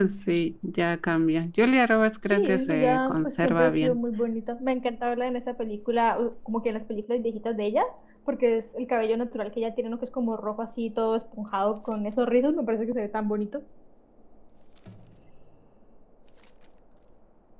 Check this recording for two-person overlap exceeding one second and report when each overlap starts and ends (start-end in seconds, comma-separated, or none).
2.3-4.0